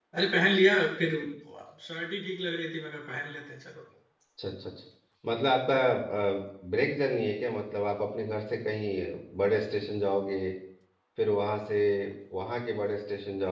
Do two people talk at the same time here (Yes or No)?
No